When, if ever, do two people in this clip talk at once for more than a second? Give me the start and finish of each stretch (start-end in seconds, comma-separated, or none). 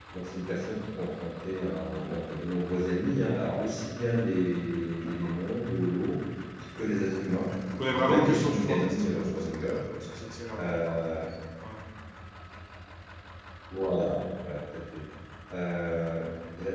7.9-9.8